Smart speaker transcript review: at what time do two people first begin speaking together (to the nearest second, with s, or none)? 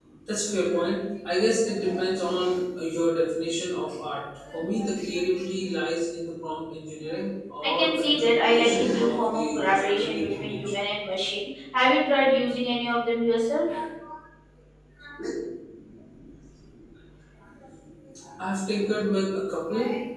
8 s